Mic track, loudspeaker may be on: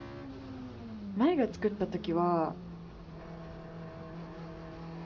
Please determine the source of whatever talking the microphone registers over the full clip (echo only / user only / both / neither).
user only